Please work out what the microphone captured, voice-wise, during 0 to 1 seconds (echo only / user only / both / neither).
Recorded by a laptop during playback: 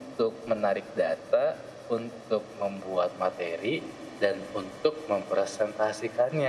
echo only